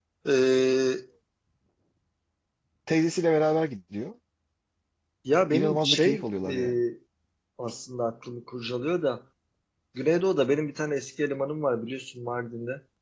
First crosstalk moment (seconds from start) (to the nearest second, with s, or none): 6 s